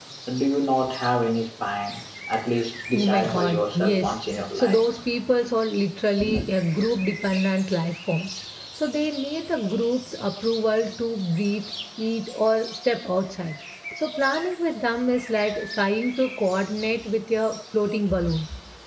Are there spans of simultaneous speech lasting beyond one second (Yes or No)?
Yes